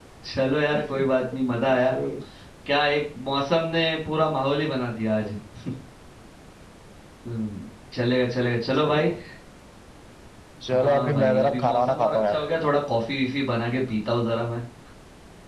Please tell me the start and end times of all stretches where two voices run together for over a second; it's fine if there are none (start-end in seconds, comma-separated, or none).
10.7-12.4